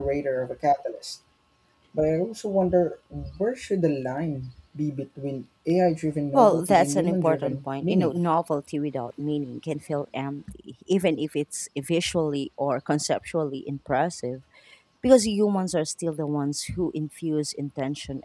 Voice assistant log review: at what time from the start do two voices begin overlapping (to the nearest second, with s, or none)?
6 s